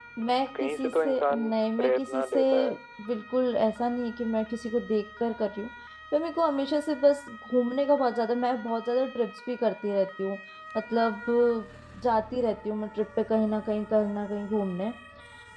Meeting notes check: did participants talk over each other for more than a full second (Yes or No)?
Yes